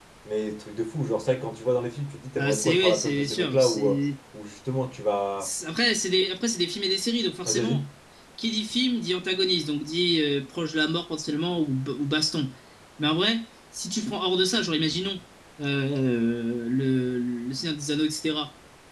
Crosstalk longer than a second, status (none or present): present